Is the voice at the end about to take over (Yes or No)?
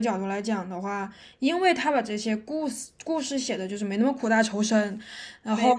No